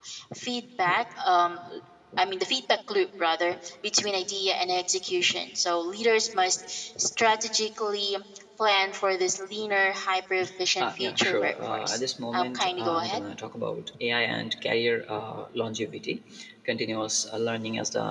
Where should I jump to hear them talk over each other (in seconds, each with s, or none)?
10.8 s